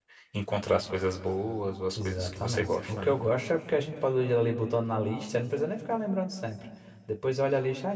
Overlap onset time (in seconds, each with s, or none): 2.0 s